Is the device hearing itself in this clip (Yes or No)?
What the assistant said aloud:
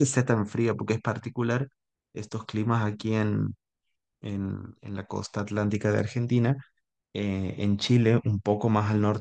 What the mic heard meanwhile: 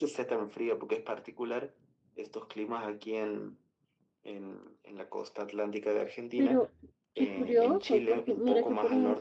Yes